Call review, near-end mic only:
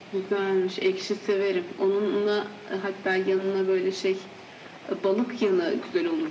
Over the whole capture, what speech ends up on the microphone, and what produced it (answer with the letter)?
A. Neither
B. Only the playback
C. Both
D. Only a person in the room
B